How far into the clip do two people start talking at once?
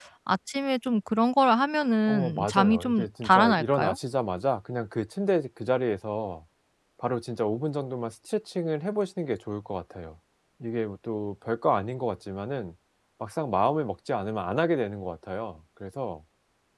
2 s

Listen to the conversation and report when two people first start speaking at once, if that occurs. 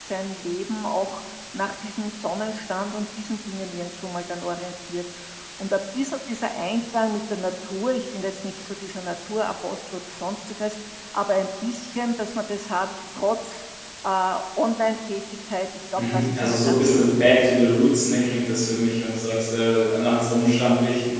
16 s

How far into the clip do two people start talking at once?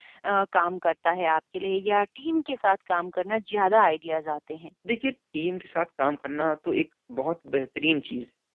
none

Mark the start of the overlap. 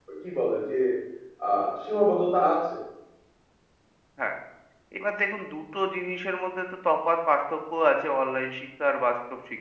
none

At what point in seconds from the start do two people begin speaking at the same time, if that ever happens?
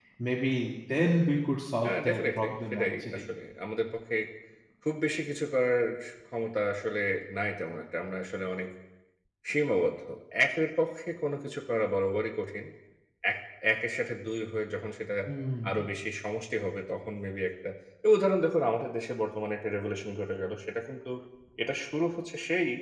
2 s

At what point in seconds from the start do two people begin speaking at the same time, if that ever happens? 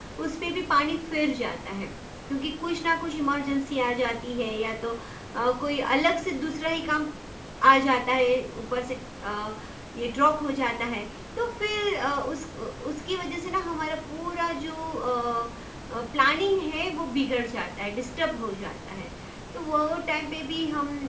none

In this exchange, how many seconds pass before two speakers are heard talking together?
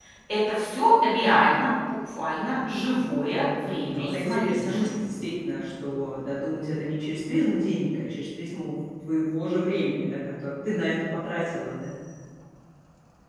4 s

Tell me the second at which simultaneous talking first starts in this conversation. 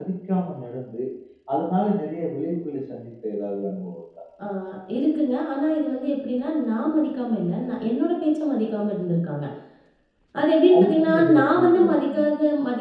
11 s

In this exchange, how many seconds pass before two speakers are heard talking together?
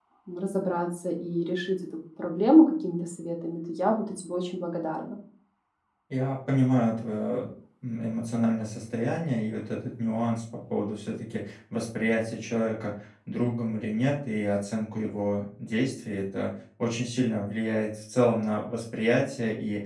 none

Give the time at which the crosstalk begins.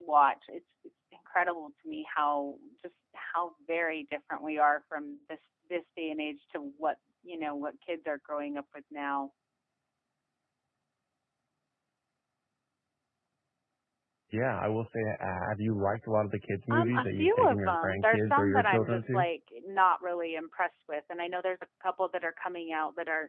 17 s

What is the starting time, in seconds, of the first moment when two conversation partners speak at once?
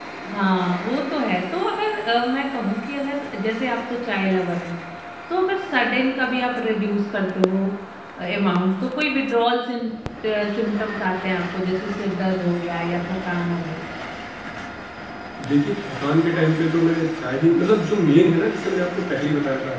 none

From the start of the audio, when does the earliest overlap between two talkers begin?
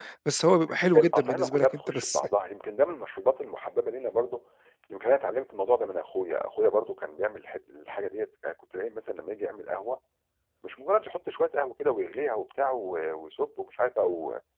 1 s

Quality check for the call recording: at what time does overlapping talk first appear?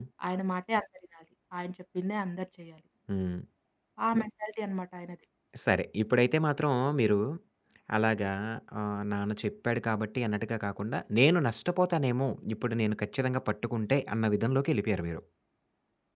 none

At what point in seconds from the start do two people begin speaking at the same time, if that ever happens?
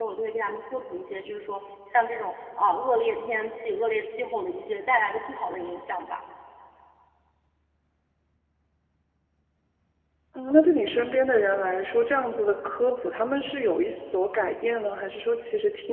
none

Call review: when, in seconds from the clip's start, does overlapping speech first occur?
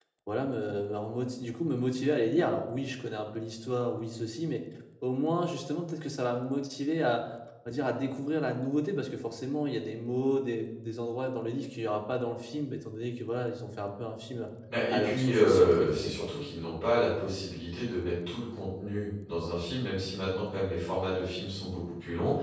15 s

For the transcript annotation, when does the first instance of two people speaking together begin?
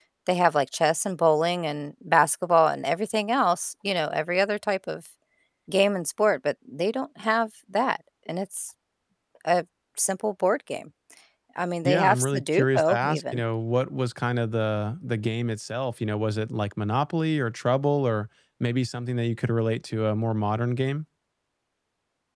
12 s

